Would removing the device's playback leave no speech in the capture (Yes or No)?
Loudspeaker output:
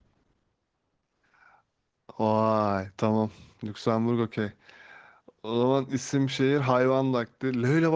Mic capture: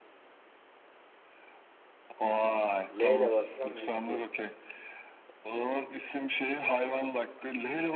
No